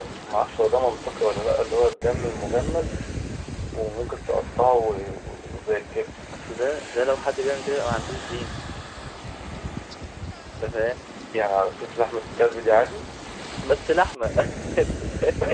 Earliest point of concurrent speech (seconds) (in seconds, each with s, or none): none